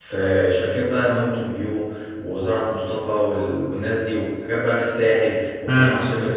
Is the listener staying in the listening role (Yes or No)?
No